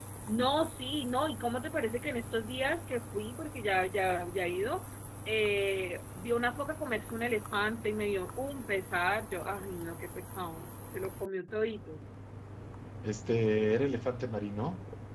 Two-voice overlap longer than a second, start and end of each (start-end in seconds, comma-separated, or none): none